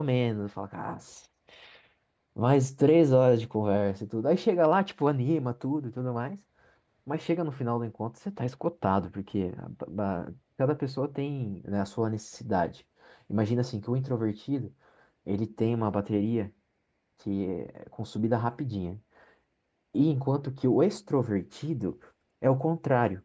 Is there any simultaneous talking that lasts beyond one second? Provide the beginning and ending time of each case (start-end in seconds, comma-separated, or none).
none